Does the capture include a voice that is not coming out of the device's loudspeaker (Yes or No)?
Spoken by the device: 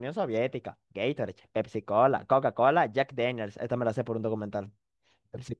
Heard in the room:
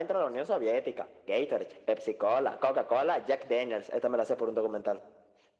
No